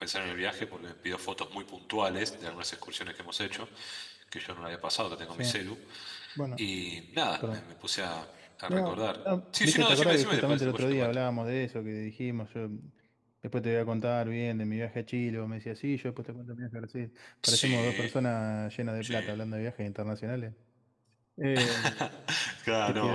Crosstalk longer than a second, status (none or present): present